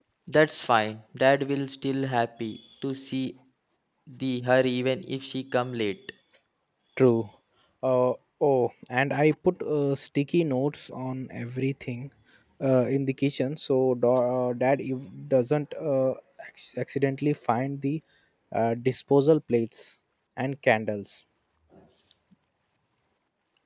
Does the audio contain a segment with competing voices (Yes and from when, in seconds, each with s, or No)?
No